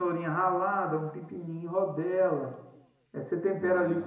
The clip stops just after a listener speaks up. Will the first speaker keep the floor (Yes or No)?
Yes